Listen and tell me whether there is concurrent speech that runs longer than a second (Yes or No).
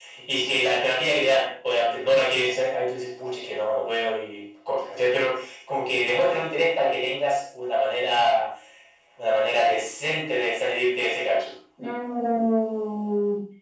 No